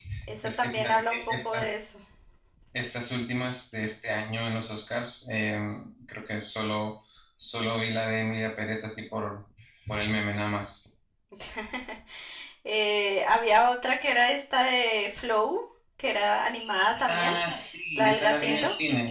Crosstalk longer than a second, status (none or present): present